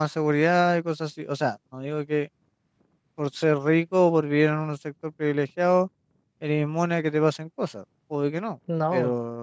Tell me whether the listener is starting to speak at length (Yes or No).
No